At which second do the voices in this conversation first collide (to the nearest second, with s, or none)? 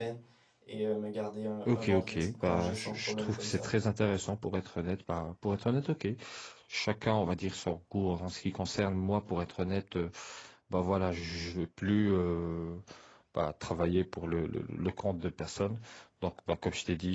2 s